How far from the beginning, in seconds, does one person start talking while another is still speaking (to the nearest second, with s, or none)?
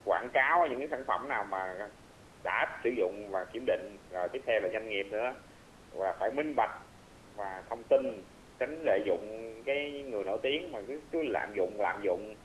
none